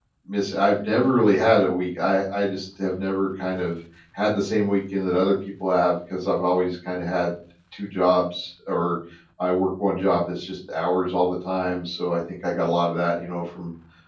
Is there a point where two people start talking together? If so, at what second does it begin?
none

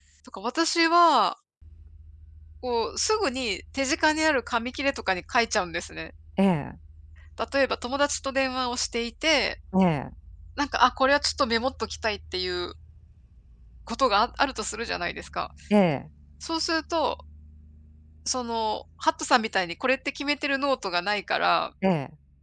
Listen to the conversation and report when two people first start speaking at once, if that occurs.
none

